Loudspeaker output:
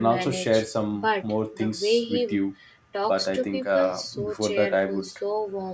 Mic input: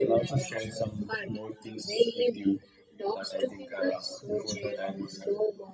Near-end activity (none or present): none